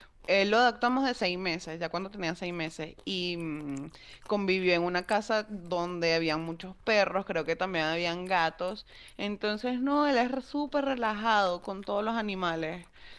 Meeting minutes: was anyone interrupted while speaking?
No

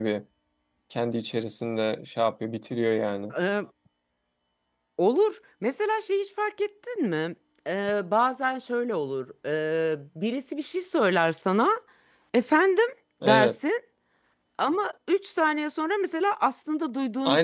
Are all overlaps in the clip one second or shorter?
Yes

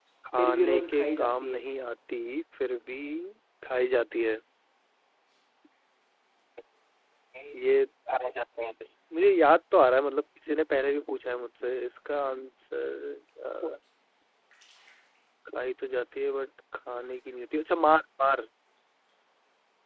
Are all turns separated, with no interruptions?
No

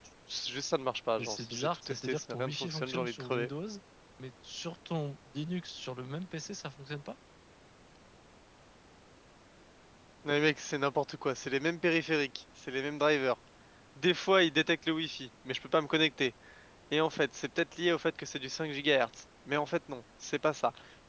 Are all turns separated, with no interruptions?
No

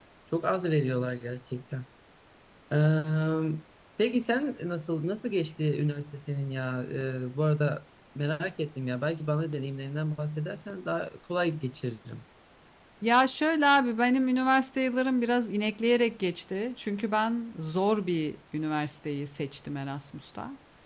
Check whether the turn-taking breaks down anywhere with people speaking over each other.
No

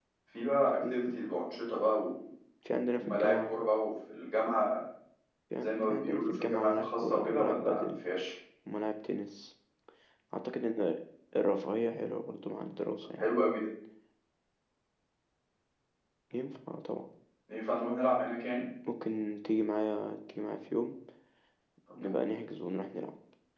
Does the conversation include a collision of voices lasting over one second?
Yes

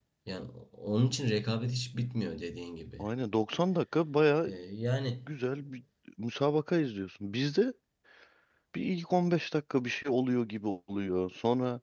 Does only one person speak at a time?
Yes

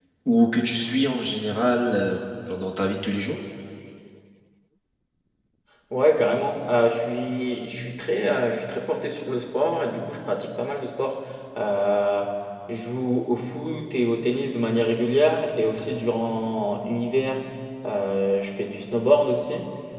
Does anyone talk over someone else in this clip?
No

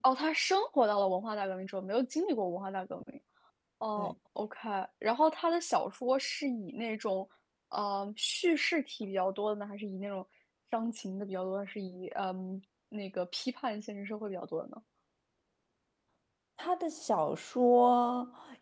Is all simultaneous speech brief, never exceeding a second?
Yes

